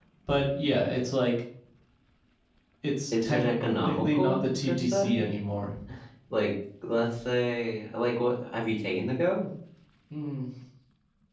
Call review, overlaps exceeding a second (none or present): present